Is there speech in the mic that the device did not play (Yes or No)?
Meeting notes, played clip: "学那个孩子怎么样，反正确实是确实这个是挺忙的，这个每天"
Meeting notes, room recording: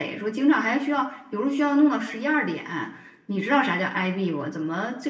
Yes